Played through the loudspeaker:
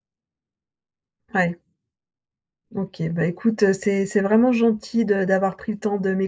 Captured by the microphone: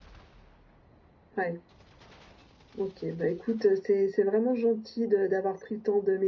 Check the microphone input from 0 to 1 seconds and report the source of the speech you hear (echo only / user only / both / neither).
neither